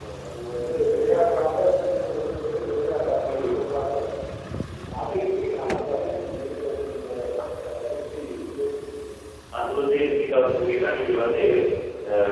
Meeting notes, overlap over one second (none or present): none